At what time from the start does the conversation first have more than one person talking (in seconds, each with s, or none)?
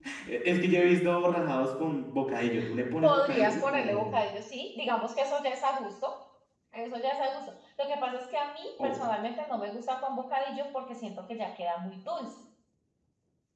3.0 s